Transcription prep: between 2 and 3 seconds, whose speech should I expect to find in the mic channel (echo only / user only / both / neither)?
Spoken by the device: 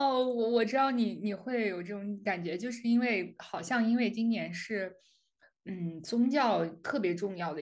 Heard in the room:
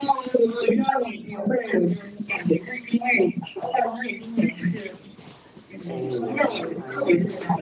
echo only